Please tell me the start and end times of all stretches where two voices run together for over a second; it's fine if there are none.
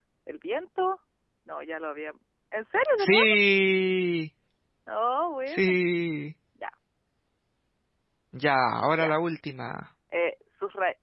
none

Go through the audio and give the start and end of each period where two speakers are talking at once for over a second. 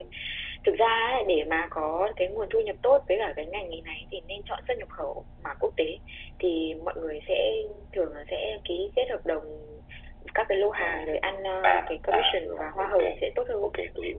11.6-12.9

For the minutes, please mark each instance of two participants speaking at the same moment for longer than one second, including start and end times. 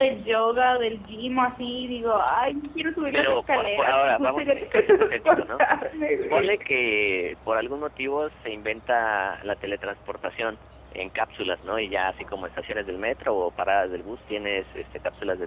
3.1-5.6

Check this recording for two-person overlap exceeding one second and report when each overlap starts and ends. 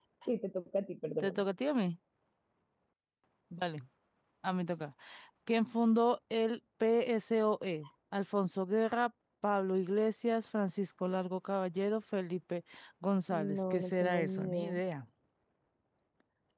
13.3-14.8

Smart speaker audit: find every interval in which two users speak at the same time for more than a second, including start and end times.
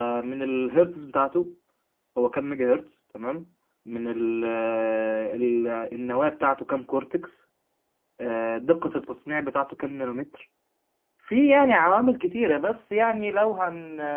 none

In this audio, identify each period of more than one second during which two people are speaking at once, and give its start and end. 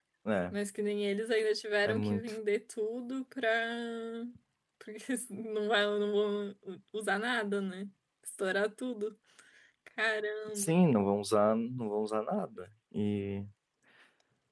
none

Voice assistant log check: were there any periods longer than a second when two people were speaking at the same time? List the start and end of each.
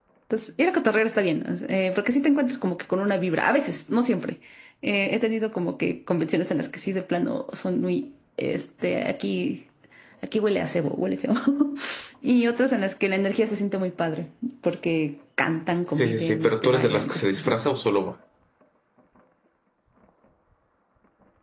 15.9-17.6

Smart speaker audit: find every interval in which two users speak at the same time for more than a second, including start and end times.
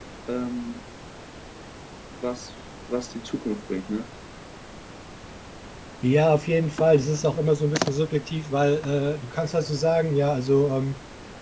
none

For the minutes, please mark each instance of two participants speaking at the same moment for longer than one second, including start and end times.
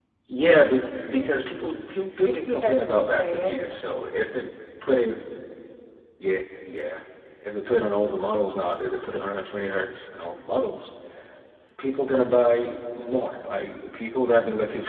2.2-3.7

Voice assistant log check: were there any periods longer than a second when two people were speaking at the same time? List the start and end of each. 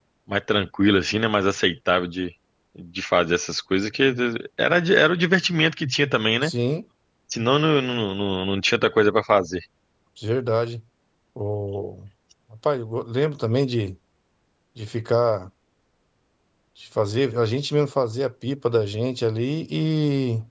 none

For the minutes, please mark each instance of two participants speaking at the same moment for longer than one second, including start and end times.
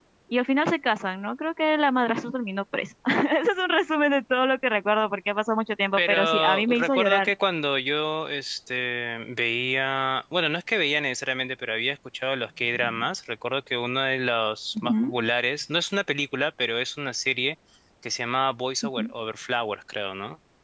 6.0-7.3

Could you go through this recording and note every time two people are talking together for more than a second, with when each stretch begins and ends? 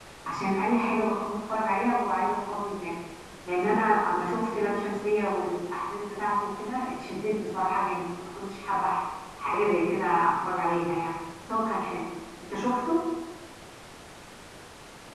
none

